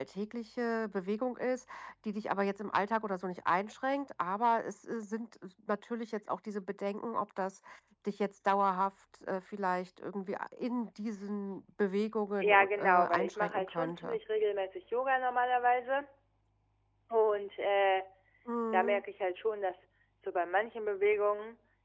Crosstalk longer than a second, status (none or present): present